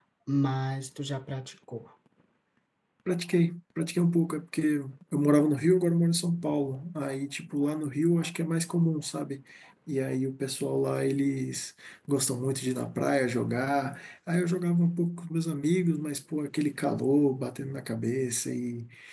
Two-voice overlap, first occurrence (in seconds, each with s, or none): none